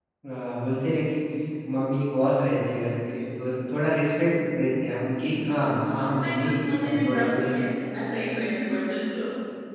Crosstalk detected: Yes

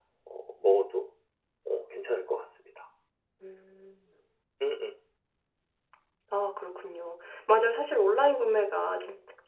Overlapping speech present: No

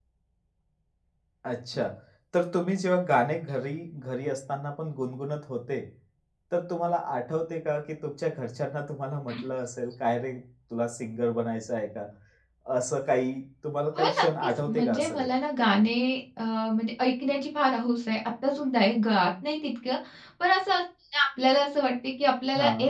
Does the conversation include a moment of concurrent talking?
Yes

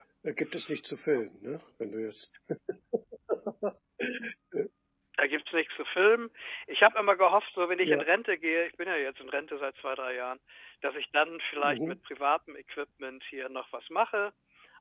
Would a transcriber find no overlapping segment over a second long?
Yes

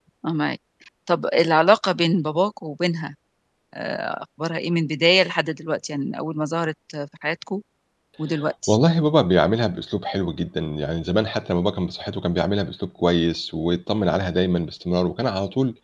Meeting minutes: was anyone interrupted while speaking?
No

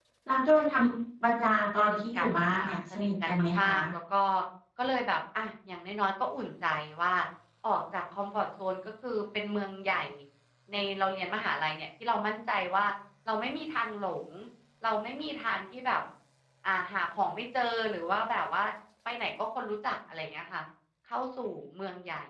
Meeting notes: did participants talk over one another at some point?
Yes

